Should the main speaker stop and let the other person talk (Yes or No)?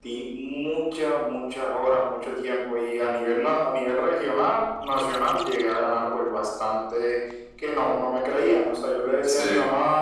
No